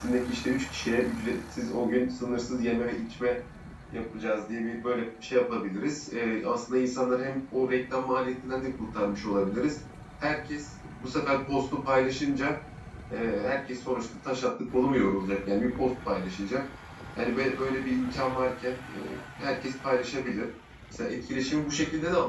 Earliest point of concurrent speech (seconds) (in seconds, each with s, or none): none